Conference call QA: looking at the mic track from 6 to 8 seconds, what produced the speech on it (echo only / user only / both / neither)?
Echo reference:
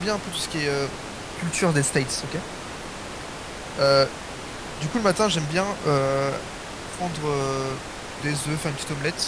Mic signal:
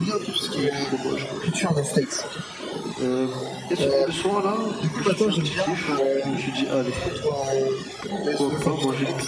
both